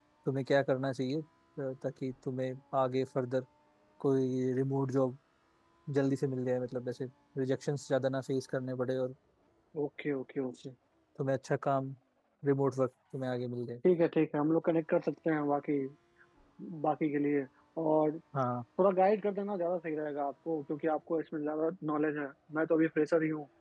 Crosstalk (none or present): none